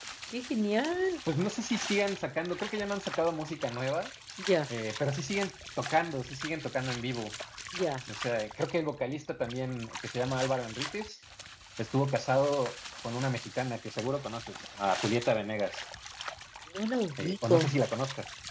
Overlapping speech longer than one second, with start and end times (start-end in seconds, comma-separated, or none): none